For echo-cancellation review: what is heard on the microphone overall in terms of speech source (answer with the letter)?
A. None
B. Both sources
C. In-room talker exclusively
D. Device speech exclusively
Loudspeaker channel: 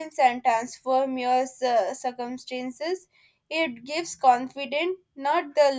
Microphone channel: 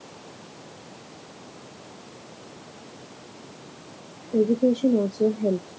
C